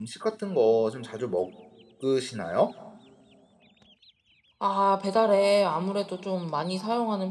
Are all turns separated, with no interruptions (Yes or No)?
Yes